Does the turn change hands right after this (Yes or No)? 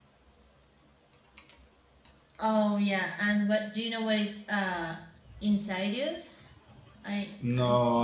Yes